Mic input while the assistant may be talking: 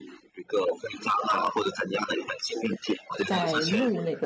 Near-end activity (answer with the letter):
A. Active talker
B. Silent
A